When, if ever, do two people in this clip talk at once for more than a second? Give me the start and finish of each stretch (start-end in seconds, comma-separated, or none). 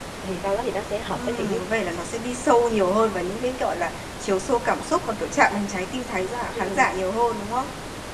none